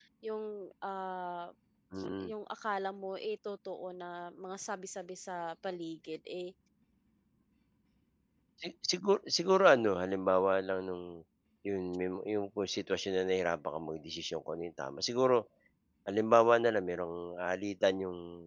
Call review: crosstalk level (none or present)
none